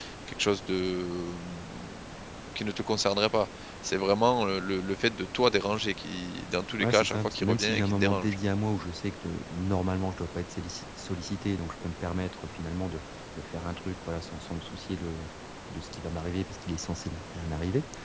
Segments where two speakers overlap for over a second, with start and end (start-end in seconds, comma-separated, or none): 6.8-8.4